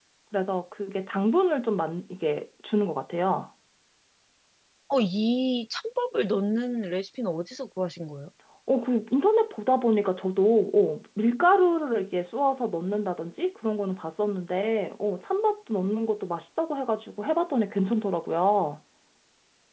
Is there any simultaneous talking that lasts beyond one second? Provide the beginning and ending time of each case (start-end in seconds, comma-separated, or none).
none